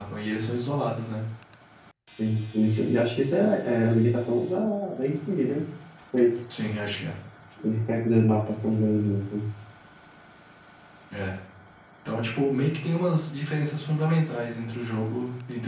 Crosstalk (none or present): none